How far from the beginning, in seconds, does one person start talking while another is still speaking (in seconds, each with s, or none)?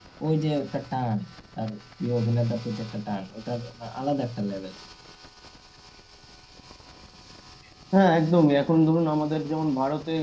none